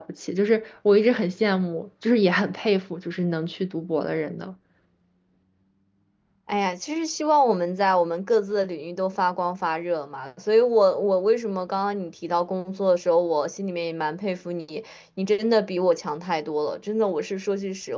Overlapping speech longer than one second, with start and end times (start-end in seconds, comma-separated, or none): none